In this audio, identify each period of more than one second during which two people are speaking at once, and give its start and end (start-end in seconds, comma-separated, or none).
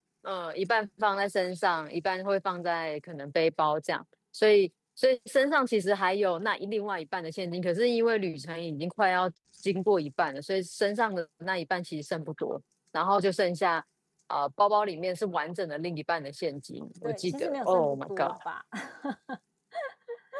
17.0-18.3